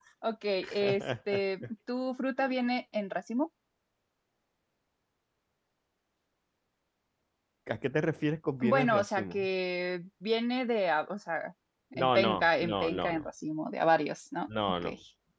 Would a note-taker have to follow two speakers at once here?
Yes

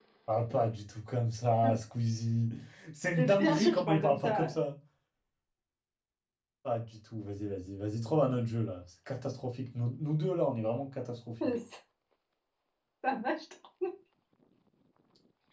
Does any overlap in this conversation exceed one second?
Yes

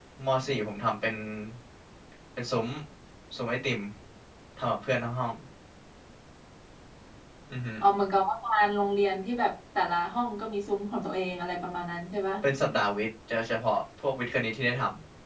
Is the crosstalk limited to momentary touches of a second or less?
Yes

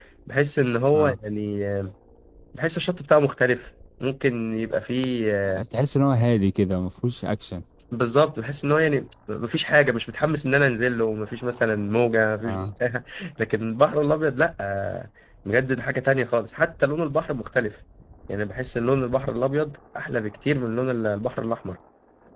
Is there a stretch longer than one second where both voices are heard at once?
No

